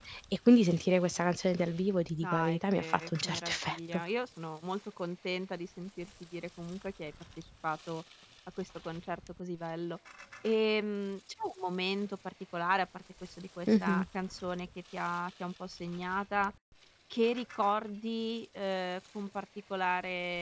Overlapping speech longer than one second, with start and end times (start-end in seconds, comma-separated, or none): 2.2-4.0